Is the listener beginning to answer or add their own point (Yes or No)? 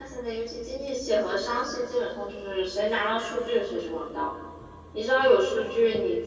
No